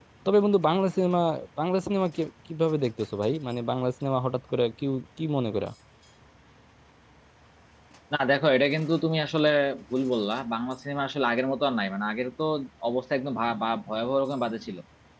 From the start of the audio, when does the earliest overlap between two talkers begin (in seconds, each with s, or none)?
none